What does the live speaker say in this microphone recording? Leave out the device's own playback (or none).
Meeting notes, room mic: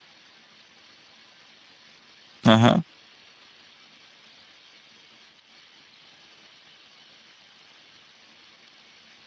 Aha.